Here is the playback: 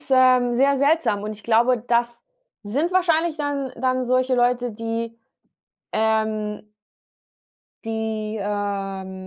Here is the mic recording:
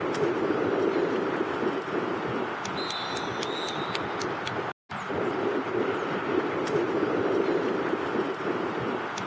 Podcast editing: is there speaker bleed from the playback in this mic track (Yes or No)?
No